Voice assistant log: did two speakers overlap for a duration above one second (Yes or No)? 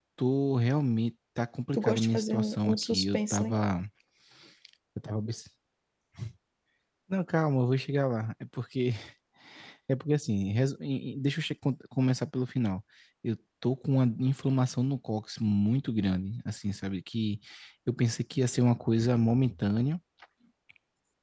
Yes